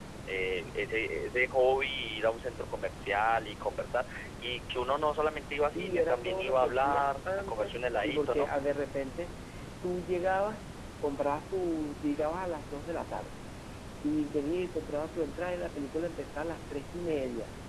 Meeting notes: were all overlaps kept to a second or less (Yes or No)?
No